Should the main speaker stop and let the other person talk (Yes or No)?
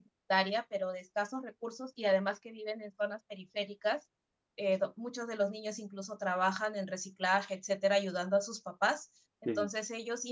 No